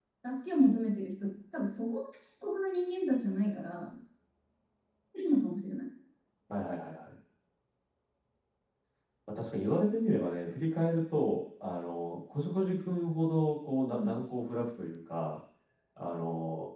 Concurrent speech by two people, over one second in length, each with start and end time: none

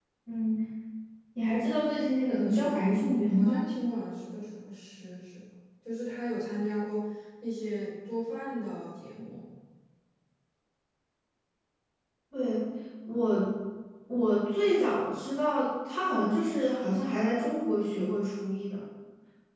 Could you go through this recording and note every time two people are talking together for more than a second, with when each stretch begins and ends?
2.3-3.6

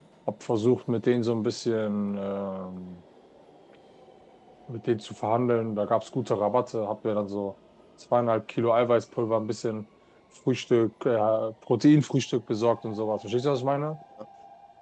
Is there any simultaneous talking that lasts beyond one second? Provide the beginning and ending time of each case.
none

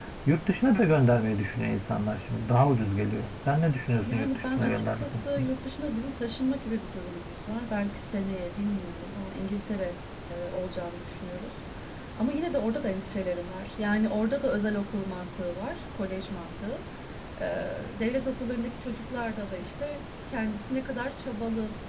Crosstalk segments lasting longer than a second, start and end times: 4.0-5.5

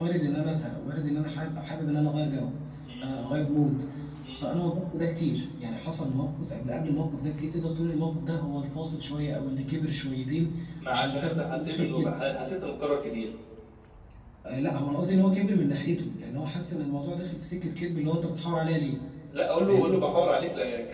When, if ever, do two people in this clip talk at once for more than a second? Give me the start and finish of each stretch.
10.9-12.1

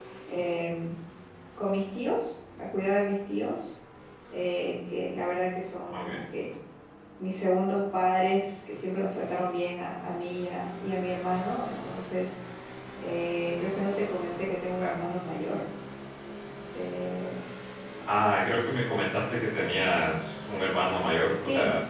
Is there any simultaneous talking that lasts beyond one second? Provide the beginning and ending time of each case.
none

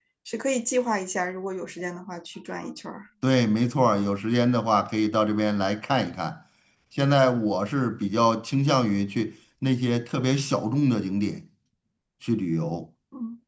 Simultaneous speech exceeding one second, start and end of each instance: none

